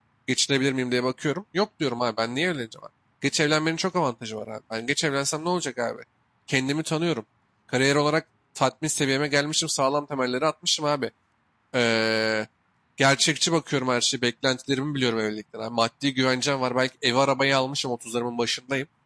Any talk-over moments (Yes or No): No